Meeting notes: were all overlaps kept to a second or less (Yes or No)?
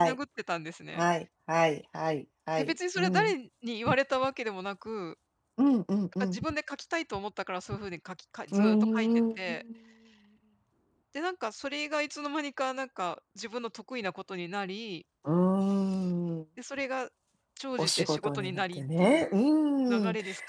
No